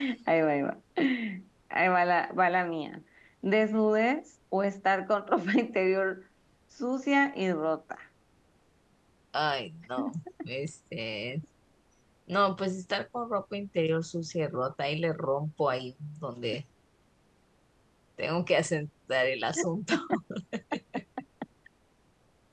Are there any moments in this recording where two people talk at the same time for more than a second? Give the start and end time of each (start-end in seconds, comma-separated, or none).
none